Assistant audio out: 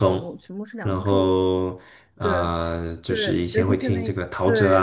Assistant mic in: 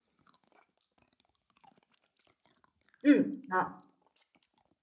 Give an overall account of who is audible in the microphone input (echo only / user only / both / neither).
user only